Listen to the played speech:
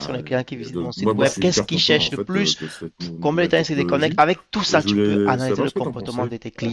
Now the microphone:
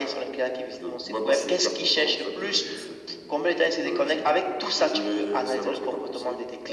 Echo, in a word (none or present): present